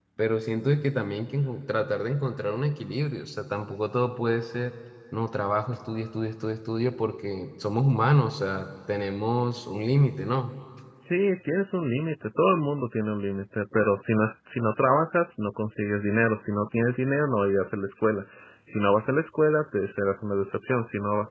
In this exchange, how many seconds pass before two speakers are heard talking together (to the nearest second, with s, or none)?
none